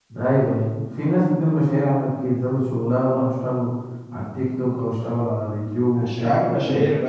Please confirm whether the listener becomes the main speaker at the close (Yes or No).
Yes